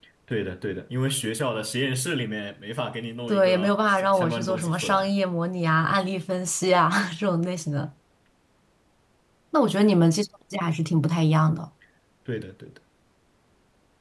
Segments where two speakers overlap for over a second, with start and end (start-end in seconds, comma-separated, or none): 3.3-5.1